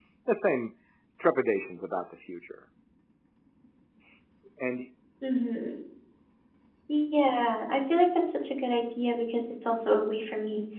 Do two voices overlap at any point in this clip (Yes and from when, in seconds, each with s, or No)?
No